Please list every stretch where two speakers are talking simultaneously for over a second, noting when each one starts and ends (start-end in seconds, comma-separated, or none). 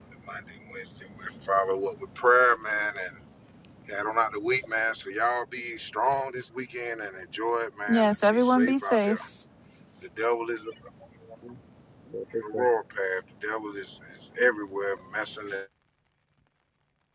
7.9-9.2